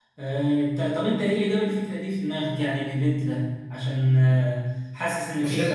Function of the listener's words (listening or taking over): taking over